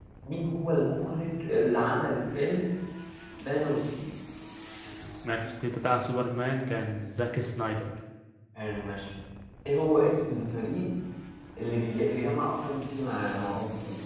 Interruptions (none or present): none